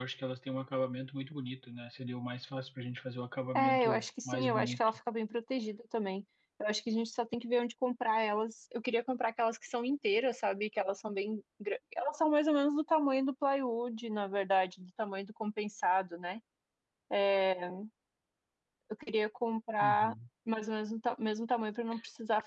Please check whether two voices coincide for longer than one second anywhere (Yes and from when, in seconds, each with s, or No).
Yes, from 3.6 s